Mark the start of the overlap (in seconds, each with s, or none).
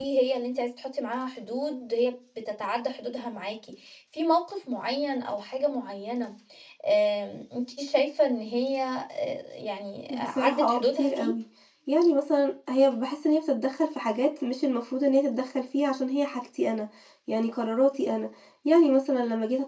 10.1 s